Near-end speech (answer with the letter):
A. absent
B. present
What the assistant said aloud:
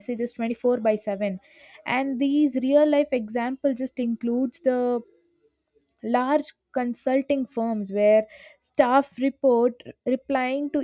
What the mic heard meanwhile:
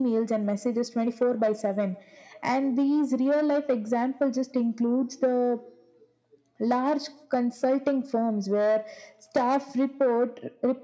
A